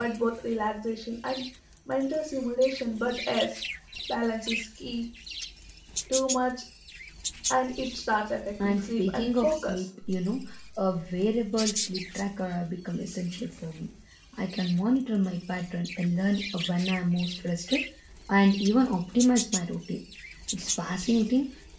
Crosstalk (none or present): present